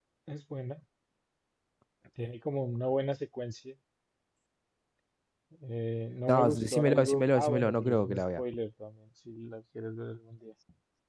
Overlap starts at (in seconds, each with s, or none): 6.3 s